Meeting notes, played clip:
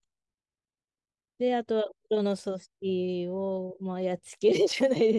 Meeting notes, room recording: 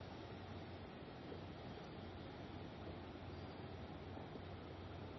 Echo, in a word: none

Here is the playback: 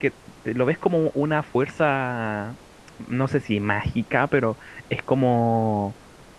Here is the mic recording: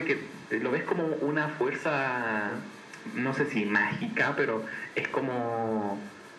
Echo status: present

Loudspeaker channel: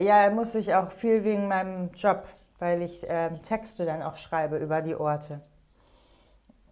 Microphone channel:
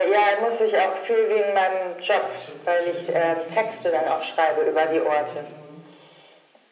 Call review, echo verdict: present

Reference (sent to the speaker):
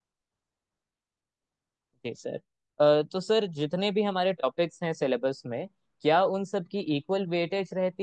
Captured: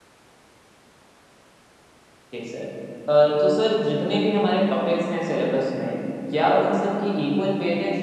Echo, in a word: present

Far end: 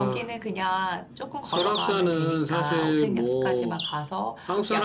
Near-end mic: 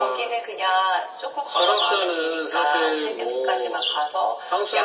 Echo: present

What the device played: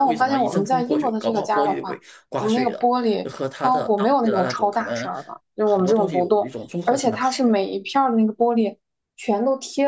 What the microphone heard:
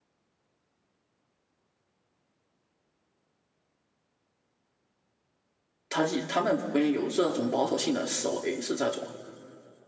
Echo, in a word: none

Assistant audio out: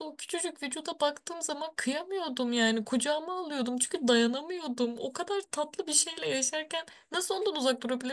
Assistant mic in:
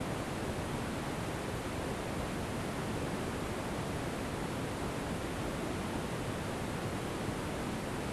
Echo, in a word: none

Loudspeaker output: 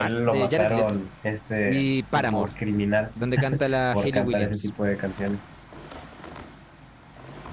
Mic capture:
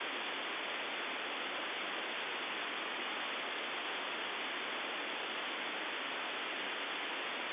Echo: none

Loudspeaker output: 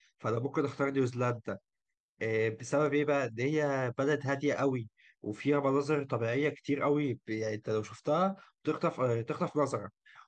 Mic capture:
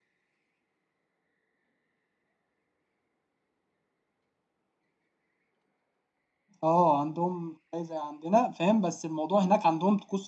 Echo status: none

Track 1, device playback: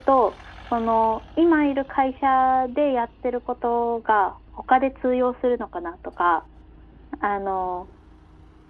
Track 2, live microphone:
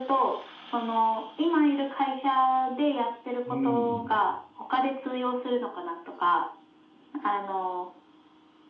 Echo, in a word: present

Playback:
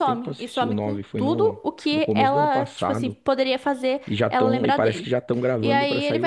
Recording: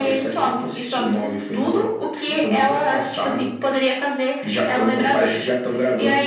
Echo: present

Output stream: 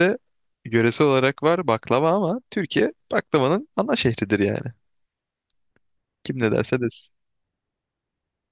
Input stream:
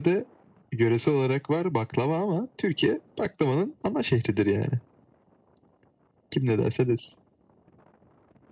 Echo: present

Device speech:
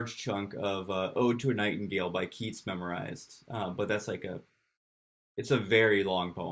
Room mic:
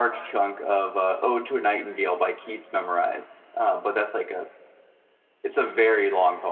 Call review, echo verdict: present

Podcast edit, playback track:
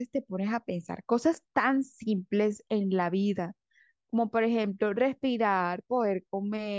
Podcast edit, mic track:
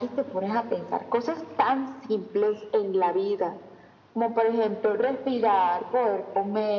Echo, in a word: present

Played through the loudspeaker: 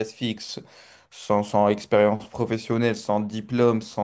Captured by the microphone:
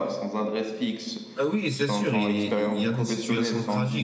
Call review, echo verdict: present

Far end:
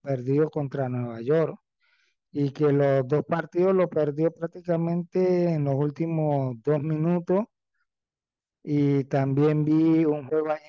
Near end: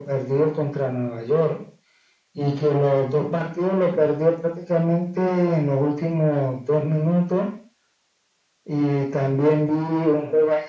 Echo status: present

